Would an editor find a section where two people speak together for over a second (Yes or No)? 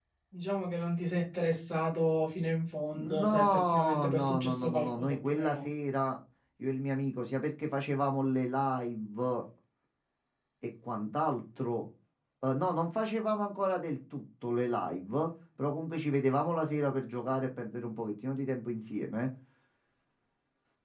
Yes